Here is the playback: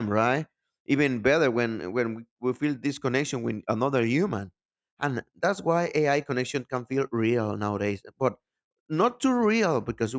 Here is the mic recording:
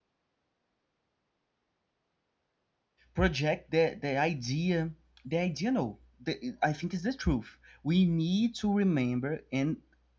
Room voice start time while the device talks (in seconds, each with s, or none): 3.1 s